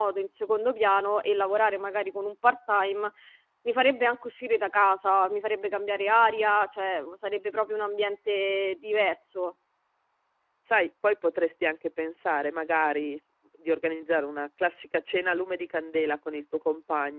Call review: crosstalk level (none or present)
none